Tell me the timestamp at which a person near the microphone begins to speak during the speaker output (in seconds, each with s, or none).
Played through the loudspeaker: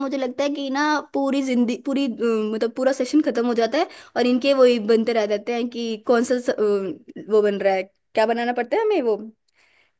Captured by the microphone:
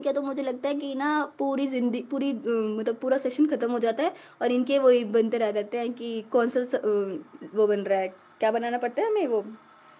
none